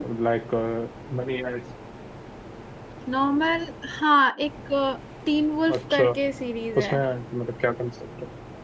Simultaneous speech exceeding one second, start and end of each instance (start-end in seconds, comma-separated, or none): none